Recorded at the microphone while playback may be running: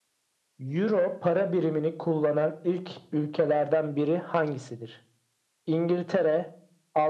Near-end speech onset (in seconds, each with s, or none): none